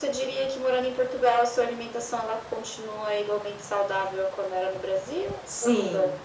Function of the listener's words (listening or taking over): taking over